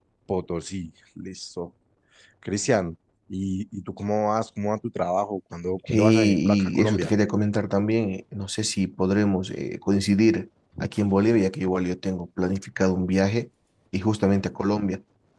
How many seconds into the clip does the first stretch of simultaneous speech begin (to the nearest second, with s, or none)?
6 s